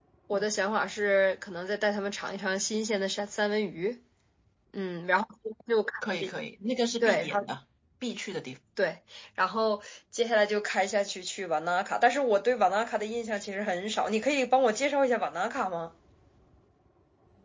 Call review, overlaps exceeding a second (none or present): none